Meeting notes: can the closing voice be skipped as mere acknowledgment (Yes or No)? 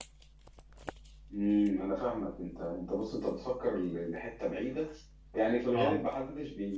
Yes